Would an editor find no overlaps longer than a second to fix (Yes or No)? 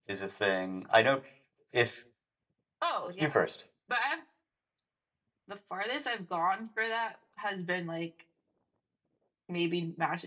Yes